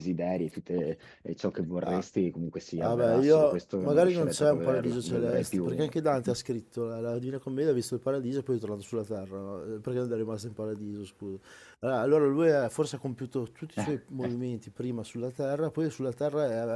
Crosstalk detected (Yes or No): Yes